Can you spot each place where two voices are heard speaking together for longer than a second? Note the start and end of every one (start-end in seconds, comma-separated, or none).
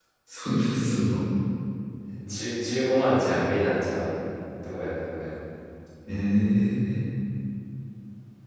none